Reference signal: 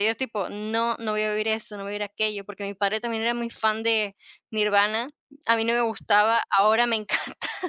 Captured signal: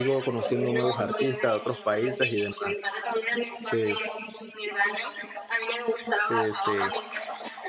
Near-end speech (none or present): present